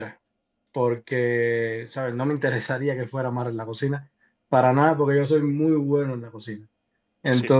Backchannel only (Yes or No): Yes